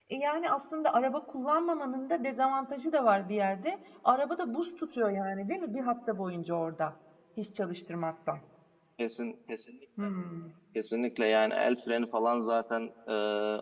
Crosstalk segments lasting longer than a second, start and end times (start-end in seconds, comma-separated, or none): none